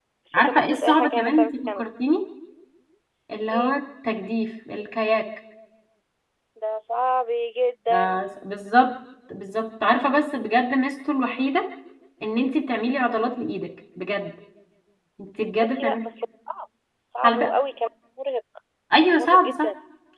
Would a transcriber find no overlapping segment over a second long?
No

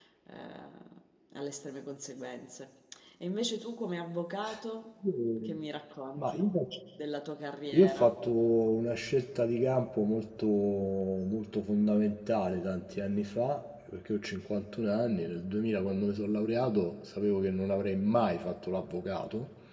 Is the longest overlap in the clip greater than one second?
No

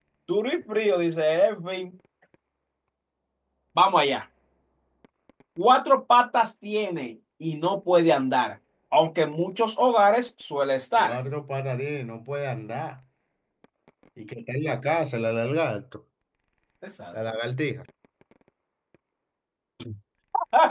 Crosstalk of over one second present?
No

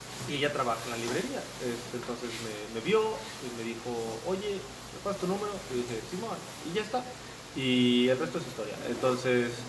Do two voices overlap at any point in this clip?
No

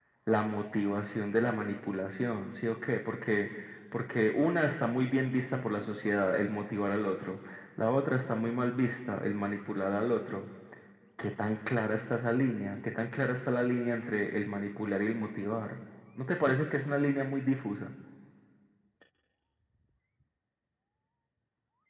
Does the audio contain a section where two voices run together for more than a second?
No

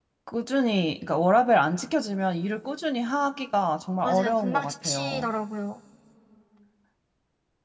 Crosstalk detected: Yes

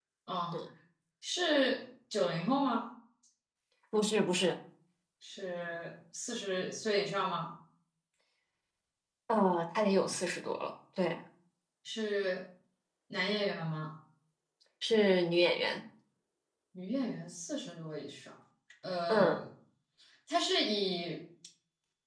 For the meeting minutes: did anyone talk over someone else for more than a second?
No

